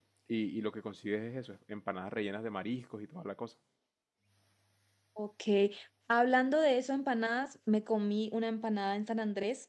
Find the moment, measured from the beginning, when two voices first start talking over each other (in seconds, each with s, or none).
none